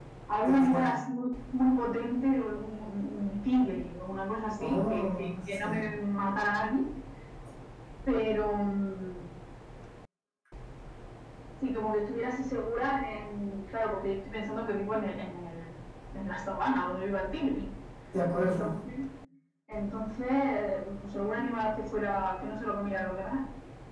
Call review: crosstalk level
present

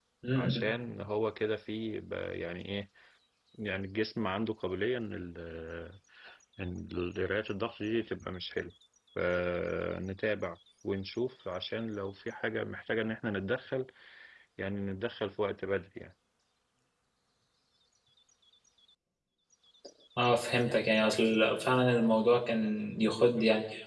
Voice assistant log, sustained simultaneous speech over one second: none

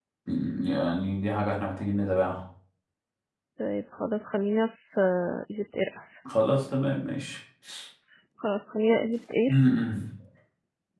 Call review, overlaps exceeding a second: none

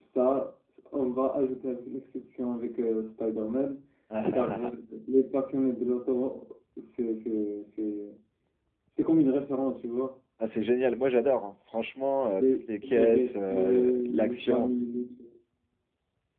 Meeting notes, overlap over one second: present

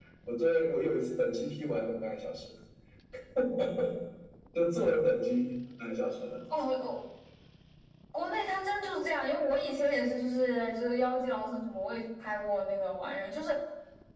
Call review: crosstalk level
none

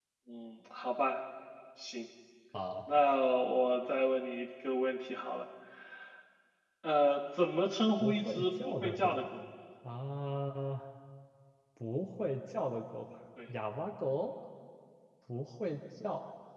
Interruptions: present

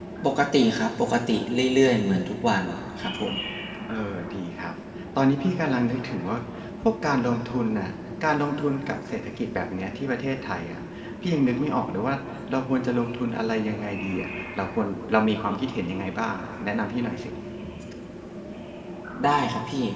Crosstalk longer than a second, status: none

